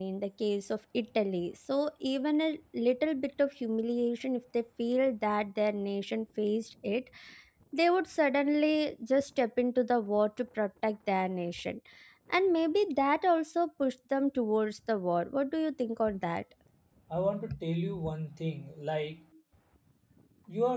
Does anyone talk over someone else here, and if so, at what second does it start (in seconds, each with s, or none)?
none